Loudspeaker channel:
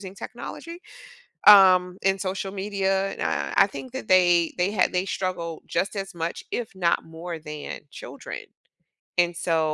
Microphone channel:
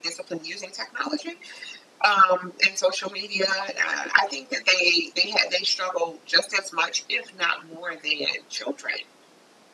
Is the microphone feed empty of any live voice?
Yes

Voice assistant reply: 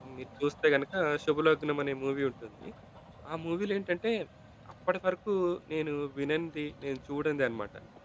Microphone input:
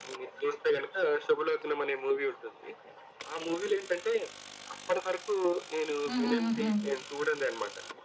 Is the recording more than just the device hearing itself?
Yes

